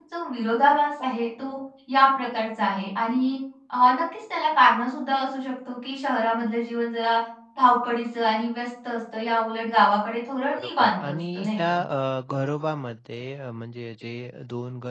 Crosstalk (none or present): present